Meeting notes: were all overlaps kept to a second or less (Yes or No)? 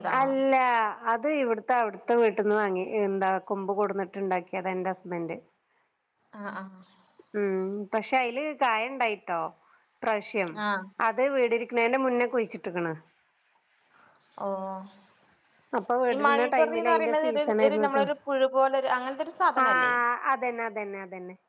No